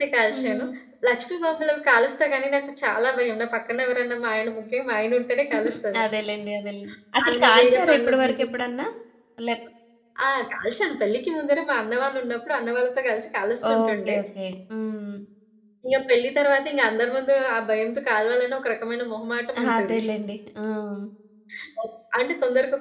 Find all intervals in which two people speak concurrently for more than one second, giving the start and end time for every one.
7.2-8.5

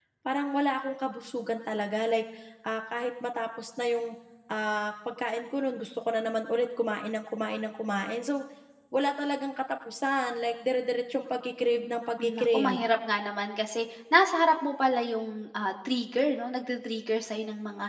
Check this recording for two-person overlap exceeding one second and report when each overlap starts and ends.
none

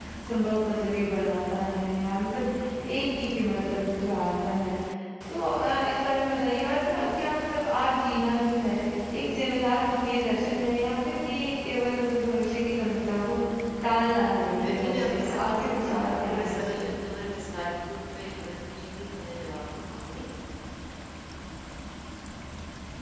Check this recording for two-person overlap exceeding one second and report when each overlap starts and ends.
14.7-16.9

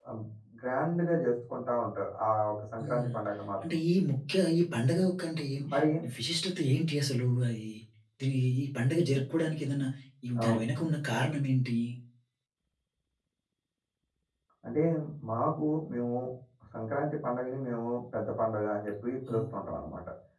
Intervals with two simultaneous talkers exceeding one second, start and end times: none

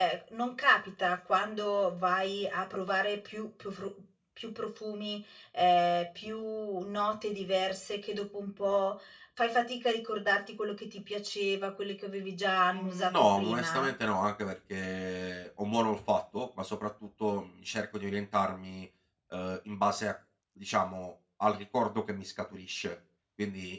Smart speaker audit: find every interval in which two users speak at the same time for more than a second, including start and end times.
12.7-13.9

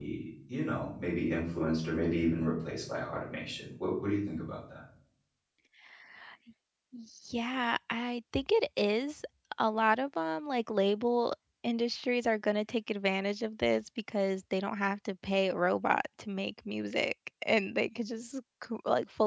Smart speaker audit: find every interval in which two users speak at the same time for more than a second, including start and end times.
none

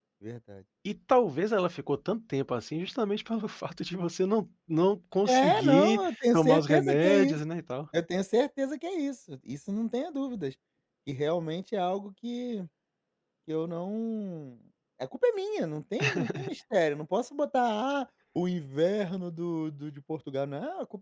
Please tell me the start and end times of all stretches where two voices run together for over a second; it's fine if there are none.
5.2-7.4

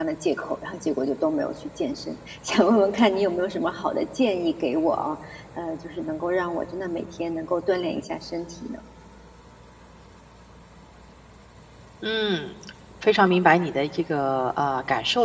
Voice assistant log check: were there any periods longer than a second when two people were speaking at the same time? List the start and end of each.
none

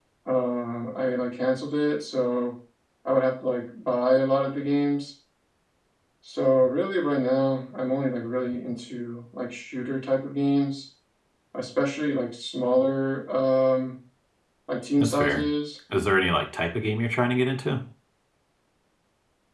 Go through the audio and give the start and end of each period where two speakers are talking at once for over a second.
none

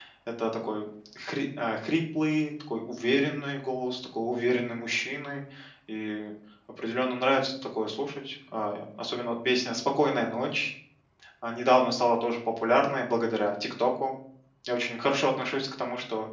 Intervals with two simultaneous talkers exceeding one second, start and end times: none

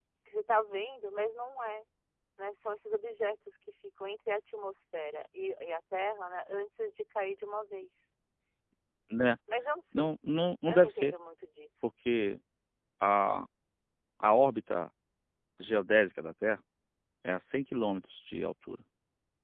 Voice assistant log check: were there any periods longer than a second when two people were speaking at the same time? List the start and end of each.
none

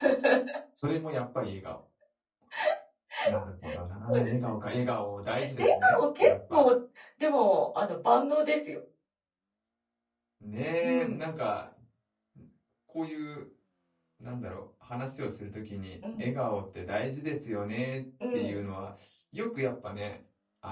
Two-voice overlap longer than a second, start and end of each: 5.4-6.6

